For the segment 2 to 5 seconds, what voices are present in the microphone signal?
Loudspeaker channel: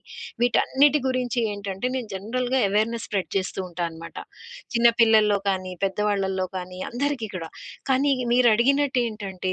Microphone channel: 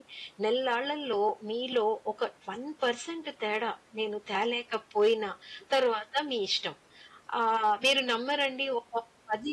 user only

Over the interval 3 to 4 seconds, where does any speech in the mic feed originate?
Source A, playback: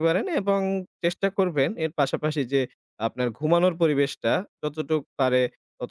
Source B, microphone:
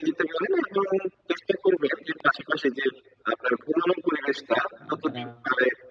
echo only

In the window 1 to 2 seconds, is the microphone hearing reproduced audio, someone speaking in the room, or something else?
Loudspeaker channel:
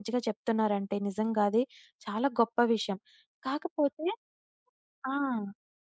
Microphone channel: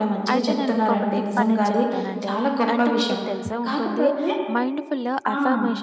both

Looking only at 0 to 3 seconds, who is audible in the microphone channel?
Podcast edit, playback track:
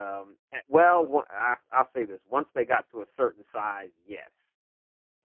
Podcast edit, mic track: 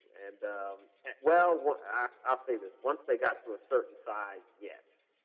echo only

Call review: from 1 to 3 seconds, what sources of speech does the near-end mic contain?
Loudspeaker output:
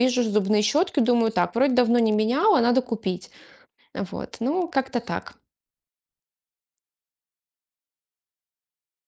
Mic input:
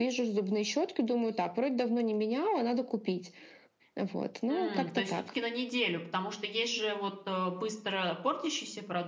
echo only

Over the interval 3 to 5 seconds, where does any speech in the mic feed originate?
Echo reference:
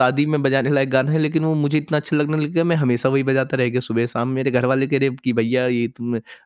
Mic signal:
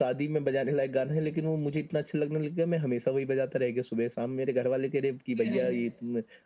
echo only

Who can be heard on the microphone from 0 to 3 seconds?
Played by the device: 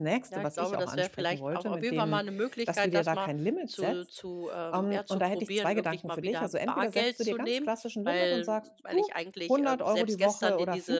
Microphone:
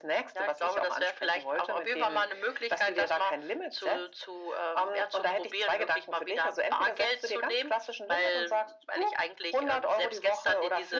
echo only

